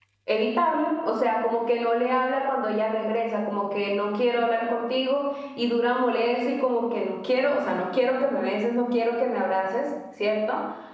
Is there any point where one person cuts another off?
No

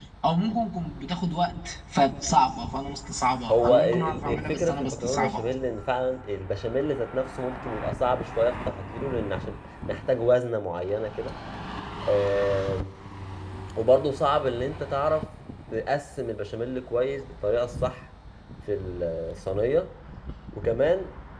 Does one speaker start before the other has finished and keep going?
Yes, from 3.5 s

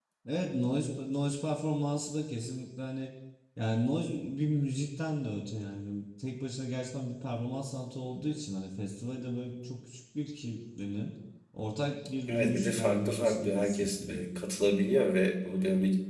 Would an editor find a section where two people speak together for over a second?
Yes, from 12.3 s

